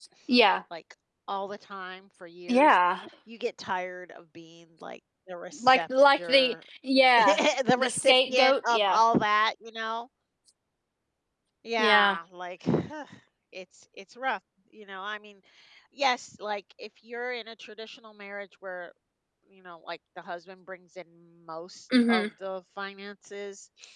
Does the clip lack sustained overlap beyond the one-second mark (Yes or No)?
No